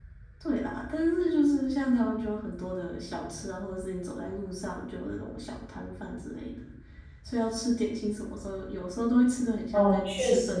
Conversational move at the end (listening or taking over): taking over